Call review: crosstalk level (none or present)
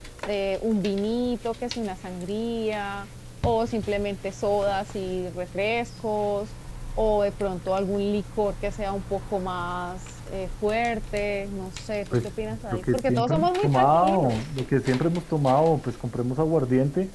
present